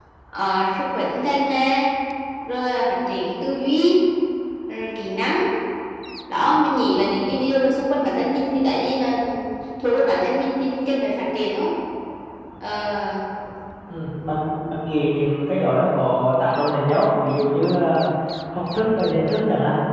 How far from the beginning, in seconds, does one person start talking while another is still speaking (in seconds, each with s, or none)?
none